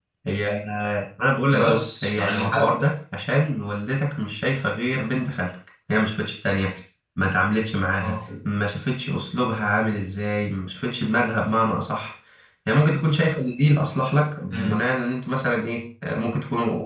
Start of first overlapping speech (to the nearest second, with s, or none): 2 s